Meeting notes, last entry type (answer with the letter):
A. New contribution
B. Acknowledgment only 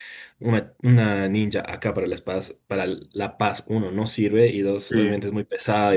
B